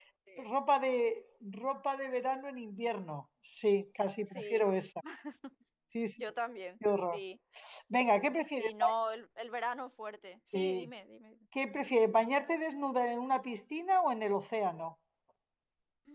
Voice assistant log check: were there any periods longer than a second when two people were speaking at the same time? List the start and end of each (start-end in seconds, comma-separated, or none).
none